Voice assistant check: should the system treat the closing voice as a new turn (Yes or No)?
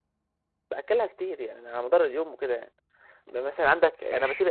No